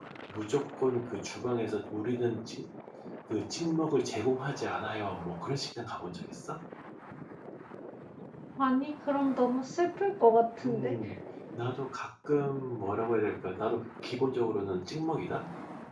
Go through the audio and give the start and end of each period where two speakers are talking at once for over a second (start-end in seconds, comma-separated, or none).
none